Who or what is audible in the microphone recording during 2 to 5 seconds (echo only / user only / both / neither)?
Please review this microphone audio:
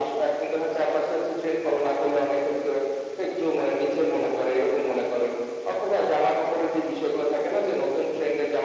echo only